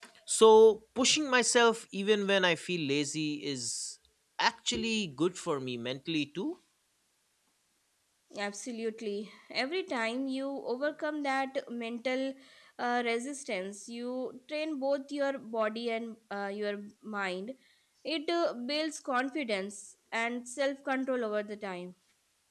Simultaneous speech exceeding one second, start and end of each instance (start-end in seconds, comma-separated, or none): none